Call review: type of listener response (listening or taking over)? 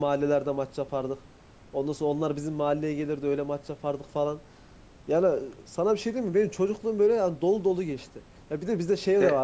listening